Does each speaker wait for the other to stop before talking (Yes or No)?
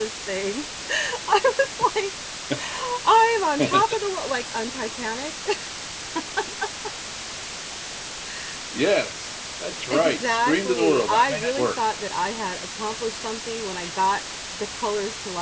No